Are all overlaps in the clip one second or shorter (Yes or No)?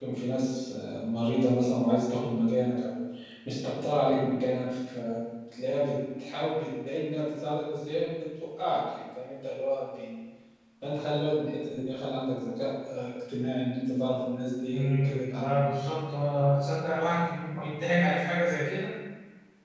No